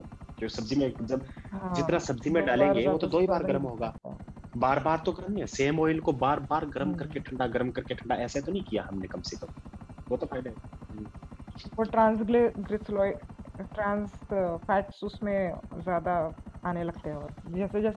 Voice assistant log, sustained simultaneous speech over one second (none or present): present